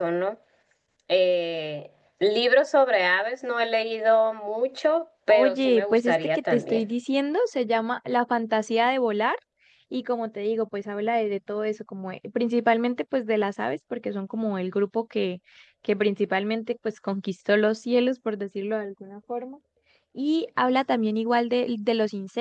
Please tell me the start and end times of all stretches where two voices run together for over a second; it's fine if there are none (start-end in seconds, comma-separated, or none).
5.3-6.8